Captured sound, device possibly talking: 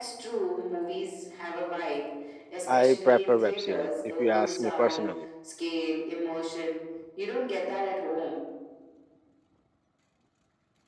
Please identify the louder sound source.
user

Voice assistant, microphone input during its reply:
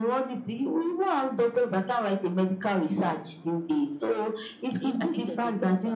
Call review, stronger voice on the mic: echo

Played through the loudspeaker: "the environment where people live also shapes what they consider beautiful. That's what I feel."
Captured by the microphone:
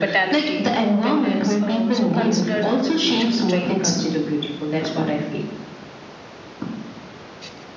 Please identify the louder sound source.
echo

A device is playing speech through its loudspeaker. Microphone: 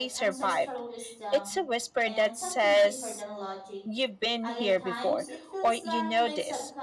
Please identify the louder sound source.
echo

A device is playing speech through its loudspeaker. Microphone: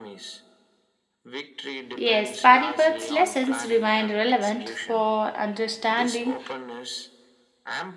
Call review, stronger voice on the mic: user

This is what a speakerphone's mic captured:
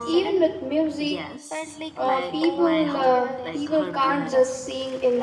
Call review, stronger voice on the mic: user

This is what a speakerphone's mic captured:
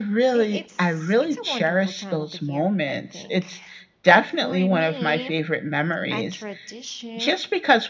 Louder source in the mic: echo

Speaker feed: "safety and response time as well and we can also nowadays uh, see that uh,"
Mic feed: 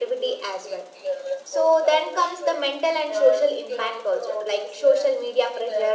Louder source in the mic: user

